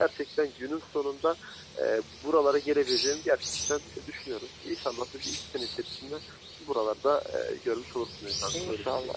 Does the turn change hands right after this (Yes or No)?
Yes